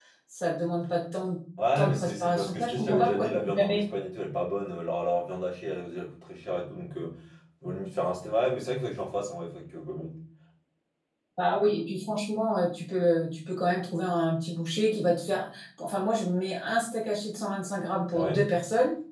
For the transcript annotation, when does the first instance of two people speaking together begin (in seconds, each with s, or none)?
1.8 s